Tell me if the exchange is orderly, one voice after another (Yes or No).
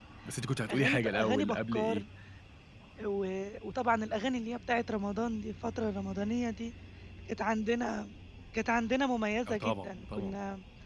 No